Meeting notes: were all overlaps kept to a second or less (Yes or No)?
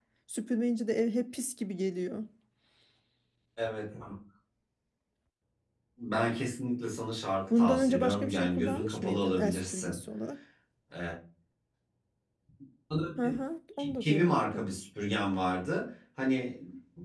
No